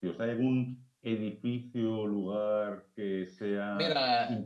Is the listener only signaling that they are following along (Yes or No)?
No